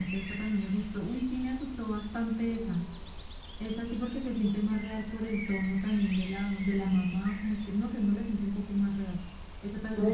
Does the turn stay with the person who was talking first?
No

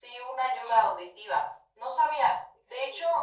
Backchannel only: Yes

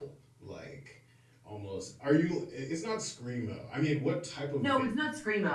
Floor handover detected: Yes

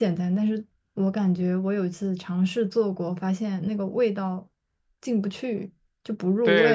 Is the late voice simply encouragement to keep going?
No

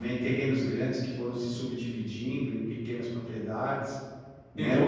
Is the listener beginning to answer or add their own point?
Yes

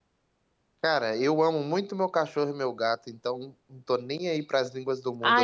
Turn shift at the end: Yes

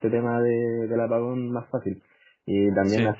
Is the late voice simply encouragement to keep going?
Yes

